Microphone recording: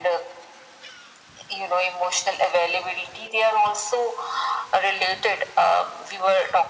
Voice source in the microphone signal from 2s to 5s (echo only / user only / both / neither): echo only